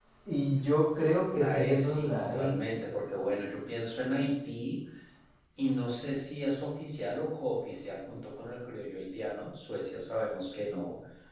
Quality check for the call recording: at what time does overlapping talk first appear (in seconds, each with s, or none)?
1.3 s